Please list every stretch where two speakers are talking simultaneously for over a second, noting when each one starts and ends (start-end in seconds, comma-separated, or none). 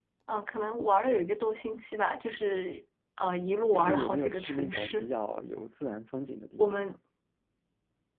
3.7-5.1